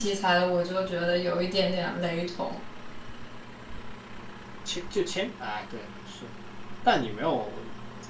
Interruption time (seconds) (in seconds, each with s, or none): none